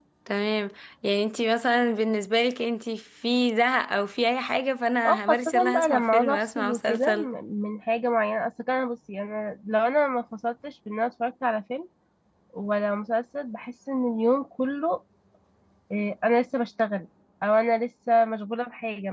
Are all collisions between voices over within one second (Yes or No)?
No